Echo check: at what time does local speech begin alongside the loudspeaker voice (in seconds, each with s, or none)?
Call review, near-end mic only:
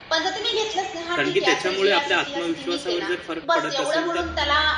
1.1 s